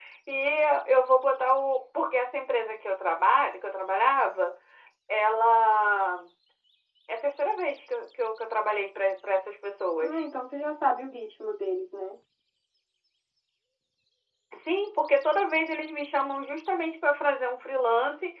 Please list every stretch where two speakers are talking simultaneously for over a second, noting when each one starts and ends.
none

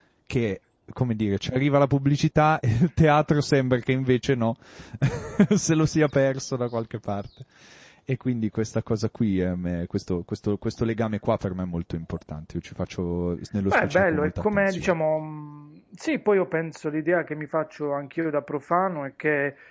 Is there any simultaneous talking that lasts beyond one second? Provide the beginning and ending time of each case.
13.7-14.9

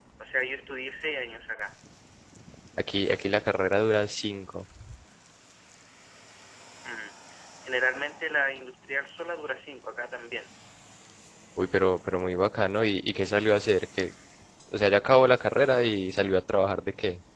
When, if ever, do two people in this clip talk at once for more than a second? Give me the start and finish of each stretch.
none

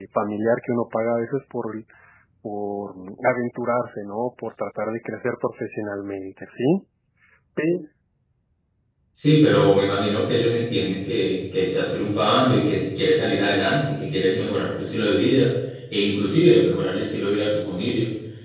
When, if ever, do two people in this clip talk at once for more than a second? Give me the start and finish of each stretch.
none

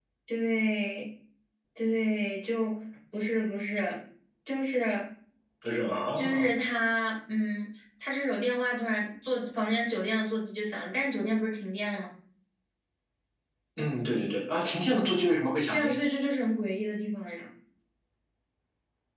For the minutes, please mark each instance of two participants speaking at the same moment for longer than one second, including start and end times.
none

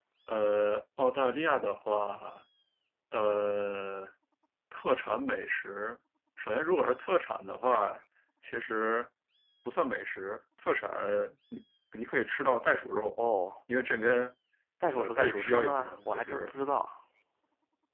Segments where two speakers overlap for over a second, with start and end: 14.9-16.5

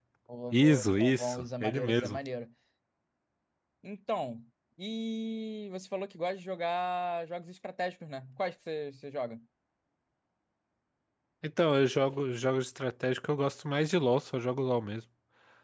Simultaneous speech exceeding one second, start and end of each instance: 0.5-2.2

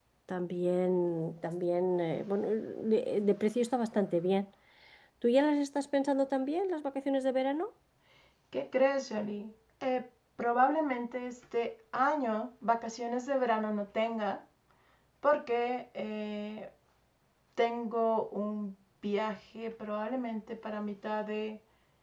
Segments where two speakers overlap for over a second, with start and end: none

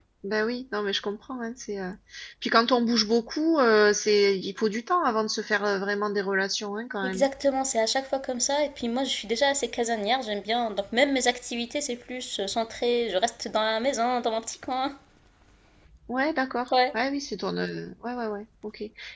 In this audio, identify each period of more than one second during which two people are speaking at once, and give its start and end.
none

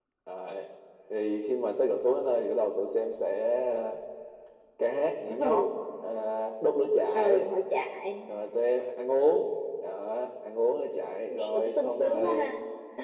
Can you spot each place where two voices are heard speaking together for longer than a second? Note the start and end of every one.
11.3-12.5

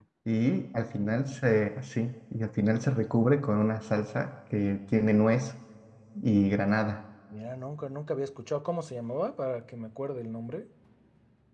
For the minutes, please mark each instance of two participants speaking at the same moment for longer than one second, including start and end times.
none

